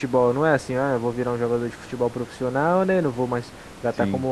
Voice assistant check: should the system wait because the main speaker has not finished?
Yes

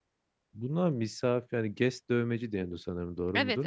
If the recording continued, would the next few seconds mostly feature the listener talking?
Yes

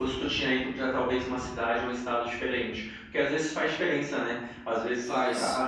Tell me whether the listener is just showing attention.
Yes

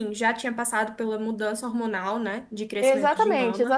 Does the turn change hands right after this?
Yes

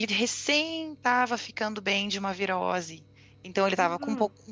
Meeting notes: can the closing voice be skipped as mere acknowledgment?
Yes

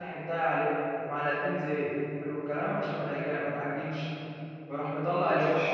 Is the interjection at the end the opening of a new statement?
No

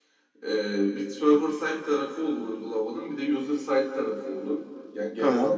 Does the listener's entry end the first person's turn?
No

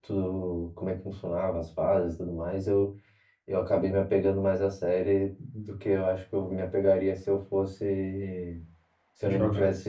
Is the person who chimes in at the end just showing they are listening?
Yes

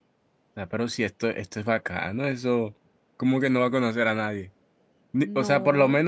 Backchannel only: Yes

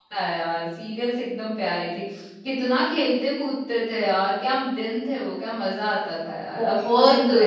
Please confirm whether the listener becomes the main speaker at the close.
Yes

